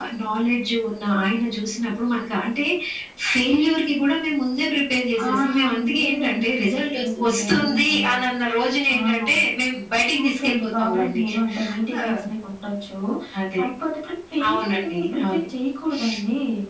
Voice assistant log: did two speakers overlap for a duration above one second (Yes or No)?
Yes